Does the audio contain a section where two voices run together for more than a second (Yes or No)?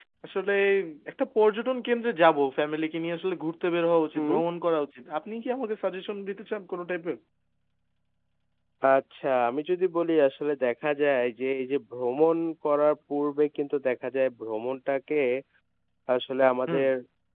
No